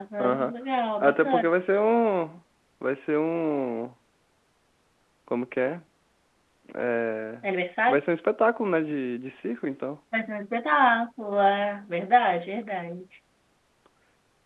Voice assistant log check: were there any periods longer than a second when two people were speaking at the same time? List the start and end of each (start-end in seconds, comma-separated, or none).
none